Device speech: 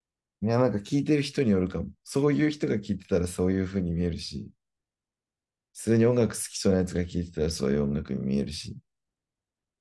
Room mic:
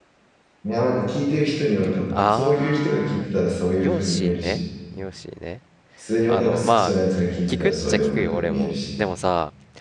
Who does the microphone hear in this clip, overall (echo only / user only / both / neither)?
both